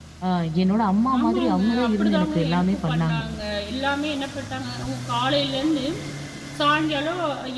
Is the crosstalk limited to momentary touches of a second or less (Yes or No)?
No